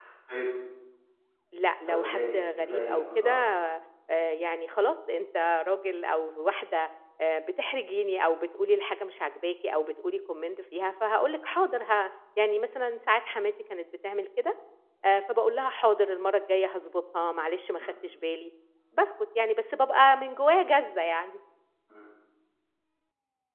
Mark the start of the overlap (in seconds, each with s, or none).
1.9 s